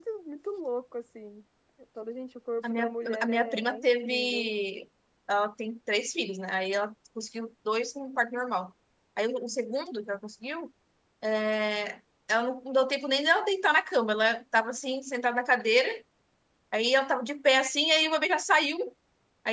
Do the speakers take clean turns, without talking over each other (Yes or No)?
No